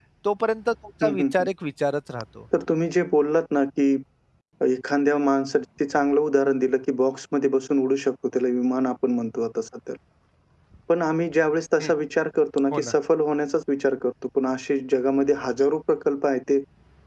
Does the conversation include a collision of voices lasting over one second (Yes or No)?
No